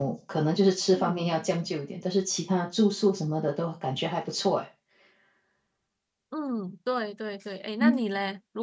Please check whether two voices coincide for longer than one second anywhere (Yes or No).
No